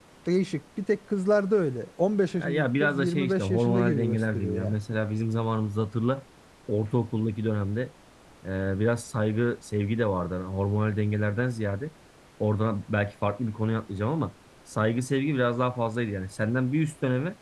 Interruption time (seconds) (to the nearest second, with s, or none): 2 s